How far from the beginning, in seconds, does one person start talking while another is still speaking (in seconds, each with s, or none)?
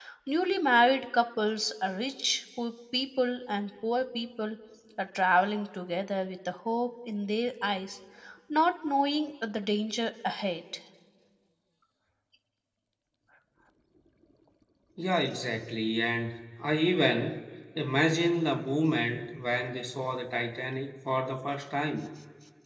none